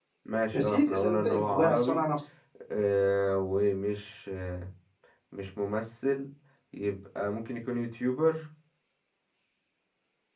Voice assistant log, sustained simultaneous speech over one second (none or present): present